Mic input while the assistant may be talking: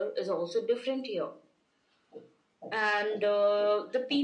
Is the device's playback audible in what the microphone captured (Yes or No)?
Yes